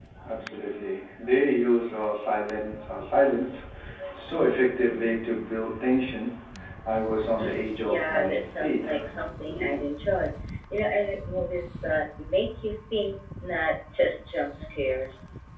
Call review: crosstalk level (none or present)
present